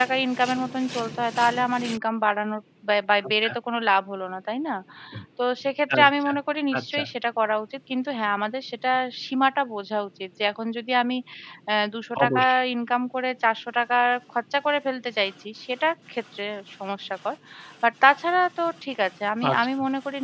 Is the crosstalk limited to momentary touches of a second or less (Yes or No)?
Yes